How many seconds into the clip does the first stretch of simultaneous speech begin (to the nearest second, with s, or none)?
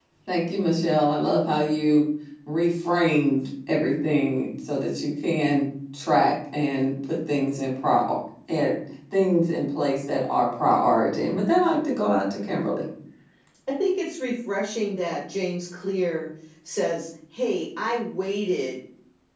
none